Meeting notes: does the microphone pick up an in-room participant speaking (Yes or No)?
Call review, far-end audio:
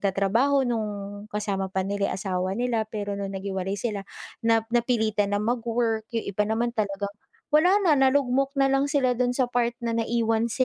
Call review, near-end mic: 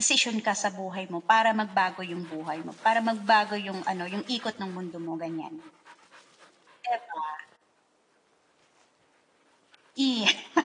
Yes